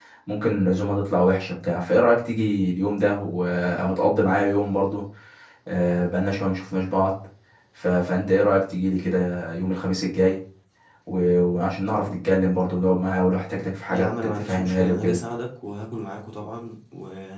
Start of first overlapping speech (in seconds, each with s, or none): 13.9 s